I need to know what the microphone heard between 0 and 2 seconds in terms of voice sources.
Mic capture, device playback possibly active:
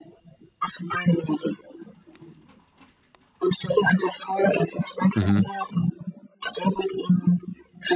echo only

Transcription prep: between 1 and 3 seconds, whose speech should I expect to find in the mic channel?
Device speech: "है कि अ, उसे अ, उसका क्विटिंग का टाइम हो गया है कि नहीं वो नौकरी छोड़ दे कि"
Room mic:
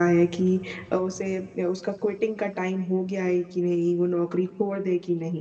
echo only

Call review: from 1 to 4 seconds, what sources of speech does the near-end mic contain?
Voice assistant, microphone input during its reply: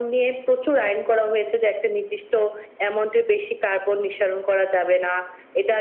echo only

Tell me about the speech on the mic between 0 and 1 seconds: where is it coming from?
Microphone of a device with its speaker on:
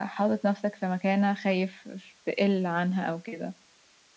echo only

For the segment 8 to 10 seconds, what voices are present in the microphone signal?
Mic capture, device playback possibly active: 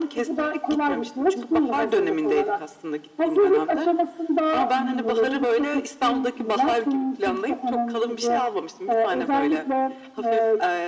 echo only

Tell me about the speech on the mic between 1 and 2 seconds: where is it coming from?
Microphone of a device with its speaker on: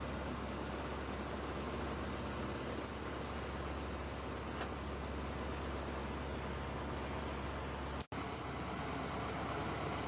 neither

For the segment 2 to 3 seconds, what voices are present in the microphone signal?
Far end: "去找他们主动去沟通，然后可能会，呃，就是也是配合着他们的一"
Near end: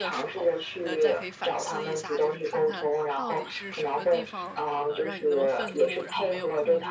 both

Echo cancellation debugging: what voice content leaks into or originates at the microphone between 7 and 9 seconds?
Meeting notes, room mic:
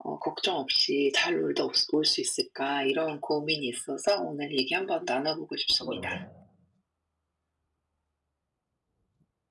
neither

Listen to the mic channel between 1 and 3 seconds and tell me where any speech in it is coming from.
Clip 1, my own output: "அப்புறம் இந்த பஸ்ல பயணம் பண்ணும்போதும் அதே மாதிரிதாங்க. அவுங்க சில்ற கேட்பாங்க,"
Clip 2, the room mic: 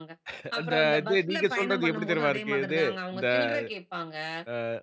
both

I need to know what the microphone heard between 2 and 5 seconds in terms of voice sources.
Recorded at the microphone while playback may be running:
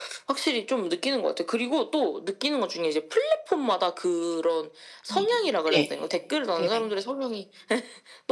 echo only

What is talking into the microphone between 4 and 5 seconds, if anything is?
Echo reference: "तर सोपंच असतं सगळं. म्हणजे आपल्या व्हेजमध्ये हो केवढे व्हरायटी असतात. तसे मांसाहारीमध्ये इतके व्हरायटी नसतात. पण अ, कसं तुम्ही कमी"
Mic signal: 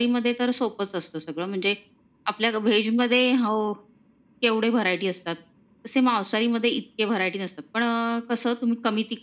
echo only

